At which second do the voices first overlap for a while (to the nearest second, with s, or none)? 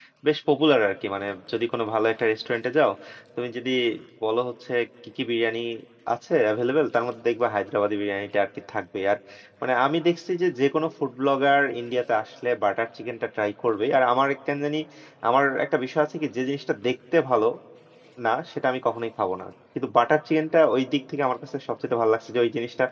none